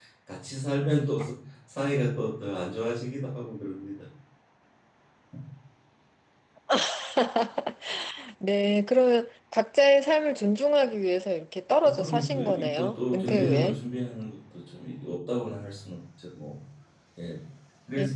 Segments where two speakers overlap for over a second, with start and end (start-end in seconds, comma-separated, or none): 11.8-13.8